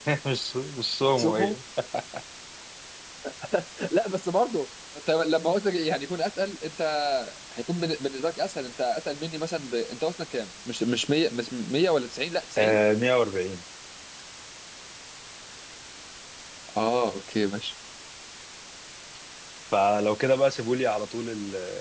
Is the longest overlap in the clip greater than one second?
No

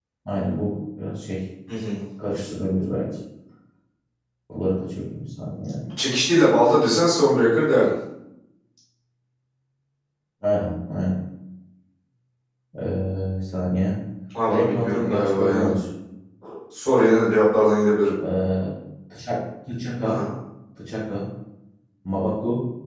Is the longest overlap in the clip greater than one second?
Yes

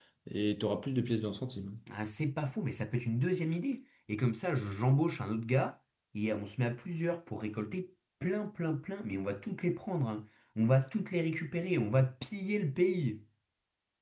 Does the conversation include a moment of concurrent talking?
No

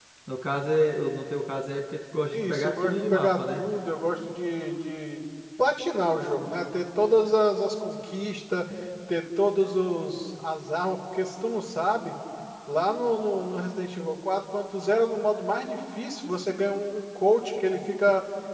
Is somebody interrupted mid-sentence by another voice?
Yes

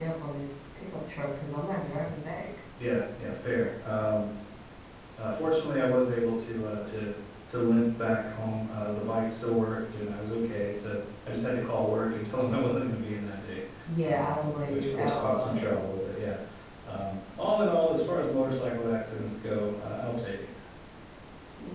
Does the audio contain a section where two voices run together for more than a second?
Yes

